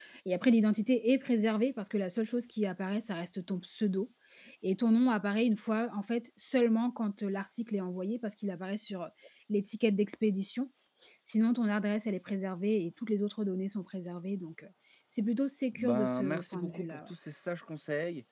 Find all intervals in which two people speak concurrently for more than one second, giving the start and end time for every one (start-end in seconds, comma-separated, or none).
15.7-17.1